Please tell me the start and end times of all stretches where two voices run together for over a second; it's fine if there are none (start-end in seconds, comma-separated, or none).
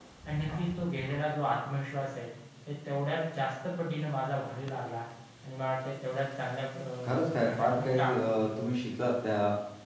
7.0-8.7